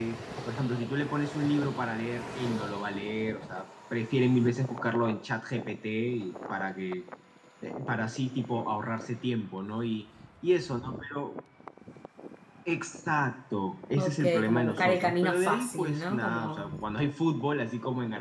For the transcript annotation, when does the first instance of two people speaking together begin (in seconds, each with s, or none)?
14.0 s